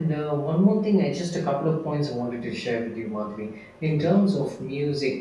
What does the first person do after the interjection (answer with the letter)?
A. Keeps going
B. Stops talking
A